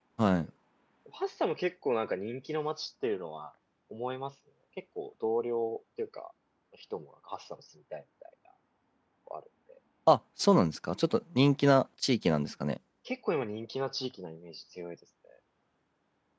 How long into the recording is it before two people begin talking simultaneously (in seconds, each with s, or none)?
none